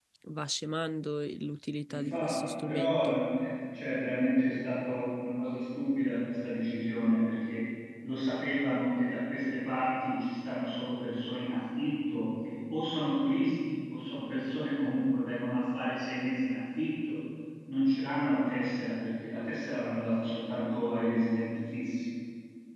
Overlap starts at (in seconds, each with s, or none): 1.9 s